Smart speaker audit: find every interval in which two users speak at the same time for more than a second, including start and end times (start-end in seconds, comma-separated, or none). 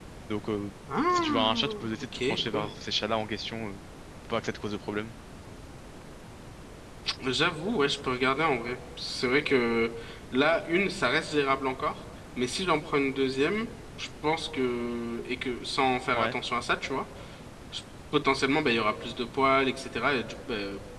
1.1-2.7